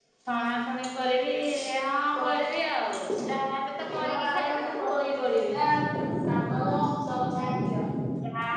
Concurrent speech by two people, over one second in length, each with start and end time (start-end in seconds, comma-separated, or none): 3.9-5.5